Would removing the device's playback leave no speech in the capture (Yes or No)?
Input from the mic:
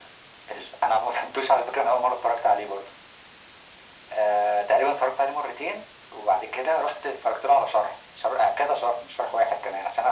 Yes